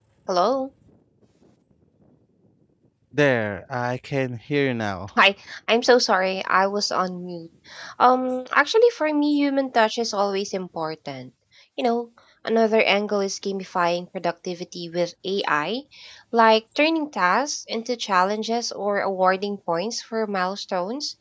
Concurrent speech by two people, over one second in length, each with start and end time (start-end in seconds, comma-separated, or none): none